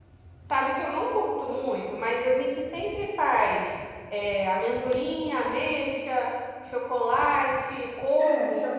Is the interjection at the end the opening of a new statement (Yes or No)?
Yes